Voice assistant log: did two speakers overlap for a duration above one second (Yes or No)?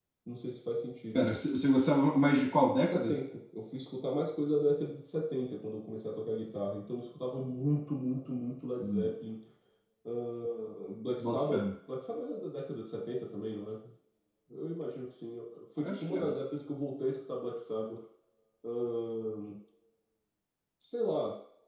No